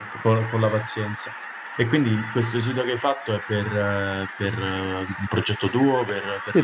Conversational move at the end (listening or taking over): taking over